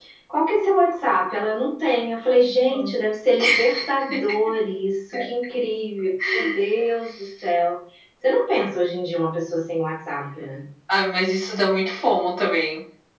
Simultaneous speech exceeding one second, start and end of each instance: none

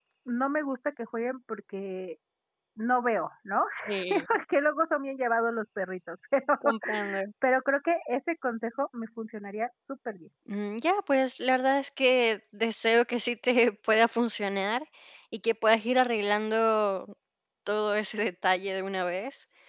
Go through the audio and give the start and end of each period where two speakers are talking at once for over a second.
none

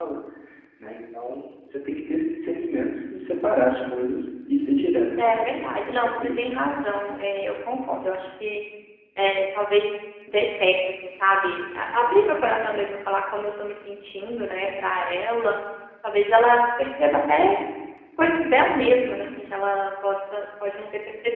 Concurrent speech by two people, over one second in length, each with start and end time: 5.2-6.4

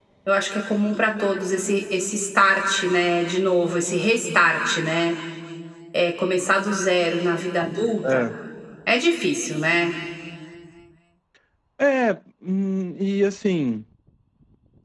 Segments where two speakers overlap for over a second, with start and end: none

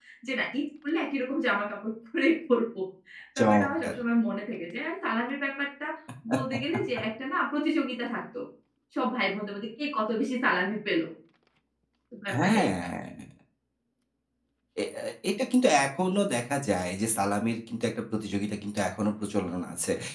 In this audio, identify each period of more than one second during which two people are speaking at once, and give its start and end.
none

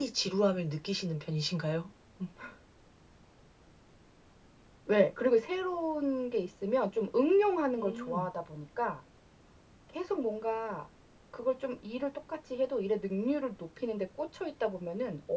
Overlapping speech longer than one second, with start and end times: none

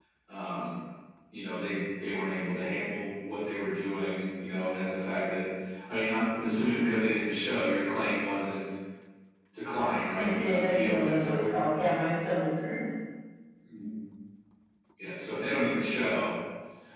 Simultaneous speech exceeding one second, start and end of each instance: 10.2-11.5

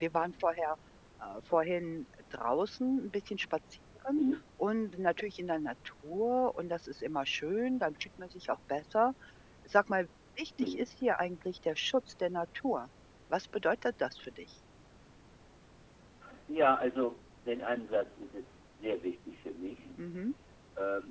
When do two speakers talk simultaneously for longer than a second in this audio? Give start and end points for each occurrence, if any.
none

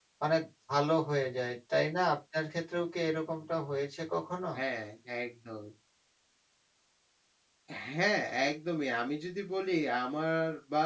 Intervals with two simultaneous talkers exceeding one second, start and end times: none

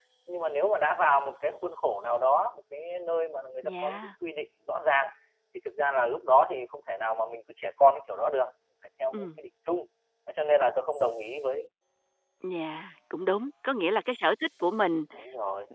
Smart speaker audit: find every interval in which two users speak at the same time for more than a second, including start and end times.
none

